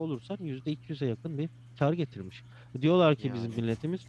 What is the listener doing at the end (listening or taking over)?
listening